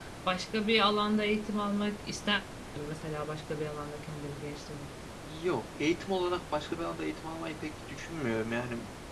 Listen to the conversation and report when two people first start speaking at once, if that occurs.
none

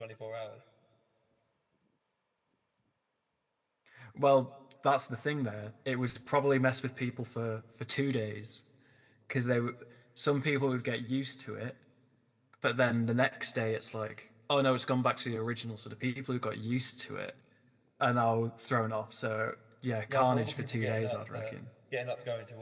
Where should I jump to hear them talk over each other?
20.1 s

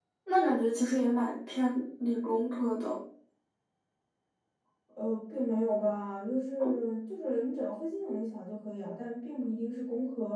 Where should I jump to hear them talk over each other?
none

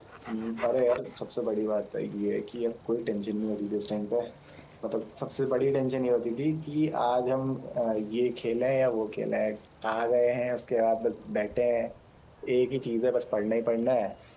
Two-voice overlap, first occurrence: none

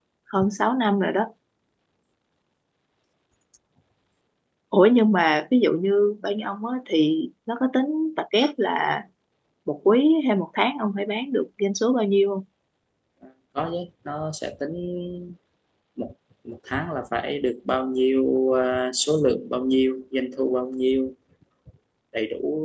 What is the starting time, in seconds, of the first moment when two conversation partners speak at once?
none

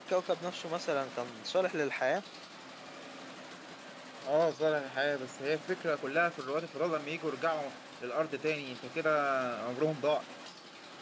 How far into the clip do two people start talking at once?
none

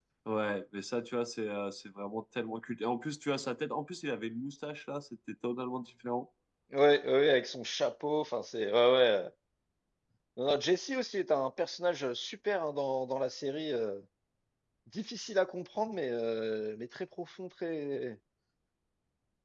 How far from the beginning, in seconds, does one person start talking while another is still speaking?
none

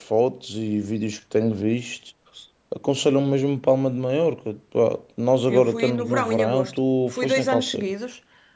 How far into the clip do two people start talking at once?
5.5 s

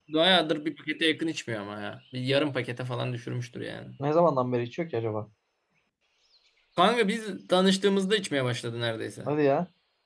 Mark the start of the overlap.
none

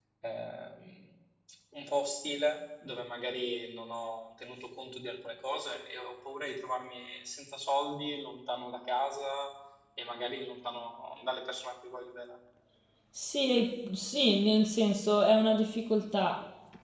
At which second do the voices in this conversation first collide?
none

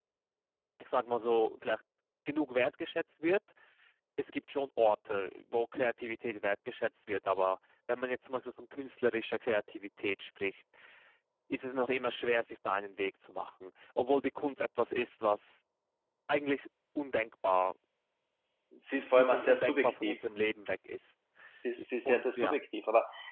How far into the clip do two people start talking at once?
18.9 s

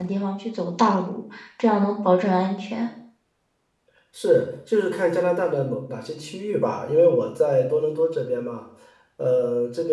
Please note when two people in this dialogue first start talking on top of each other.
none

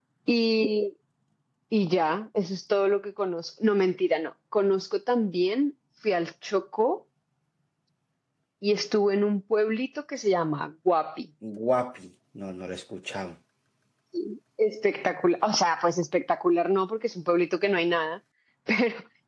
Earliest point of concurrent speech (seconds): none

